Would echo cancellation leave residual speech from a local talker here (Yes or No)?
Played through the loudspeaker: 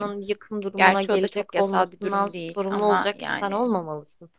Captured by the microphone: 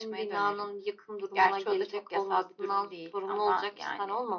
No